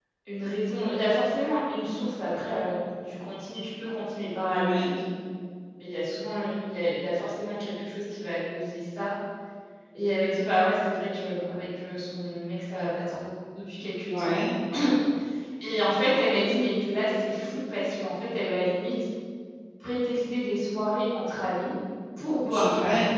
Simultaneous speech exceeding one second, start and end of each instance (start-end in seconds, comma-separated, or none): none